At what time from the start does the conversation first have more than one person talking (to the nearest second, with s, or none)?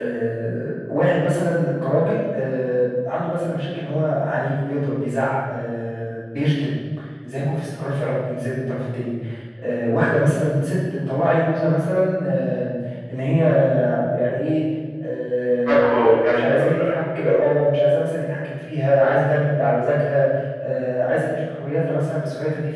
16 s